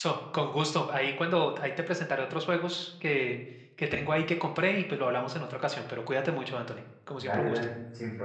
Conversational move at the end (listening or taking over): taking over